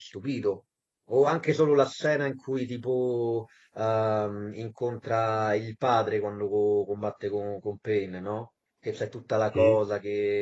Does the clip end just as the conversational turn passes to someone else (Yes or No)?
No